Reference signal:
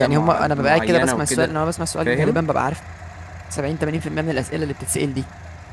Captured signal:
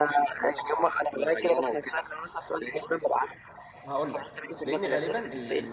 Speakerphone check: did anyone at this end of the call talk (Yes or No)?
Yes